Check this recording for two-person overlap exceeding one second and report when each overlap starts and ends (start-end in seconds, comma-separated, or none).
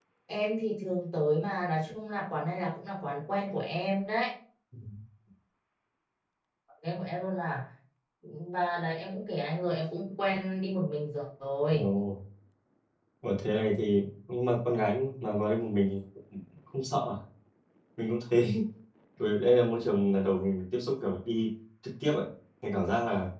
none